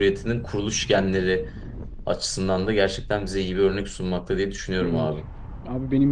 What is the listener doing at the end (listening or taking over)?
taking over